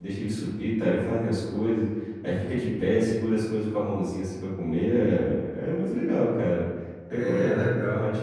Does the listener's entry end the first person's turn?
Yes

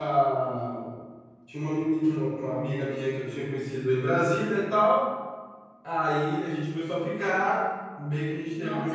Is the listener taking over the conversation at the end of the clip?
No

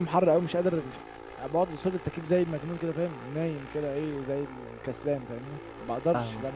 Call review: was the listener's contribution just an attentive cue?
No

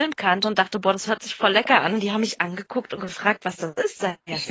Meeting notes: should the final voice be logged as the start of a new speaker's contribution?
Yes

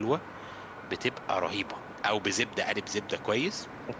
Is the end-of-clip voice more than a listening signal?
Yes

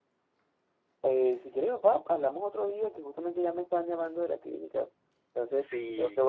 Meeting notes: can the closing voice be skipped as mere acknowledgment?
No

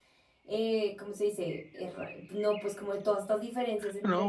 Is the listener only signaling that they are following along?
No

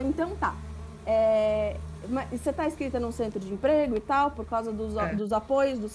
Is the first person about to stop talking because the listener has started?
No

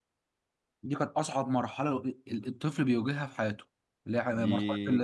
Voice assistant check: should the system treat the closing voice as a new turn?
Yes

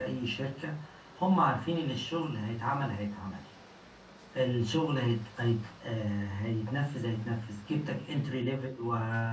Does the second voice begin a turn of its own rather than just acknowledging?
No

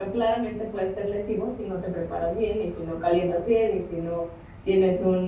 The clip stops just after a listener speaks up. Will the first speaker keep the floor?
Yes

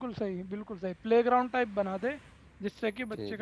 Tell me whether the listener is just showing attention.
Yes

